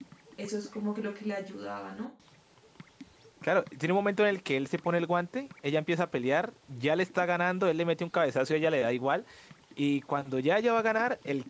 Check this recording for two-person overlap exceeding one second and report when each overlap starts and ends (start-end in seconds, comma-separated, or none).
none